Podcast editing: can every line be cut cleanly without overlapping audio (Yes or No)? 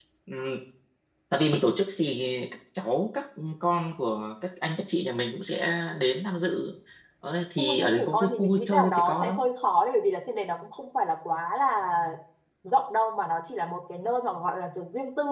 No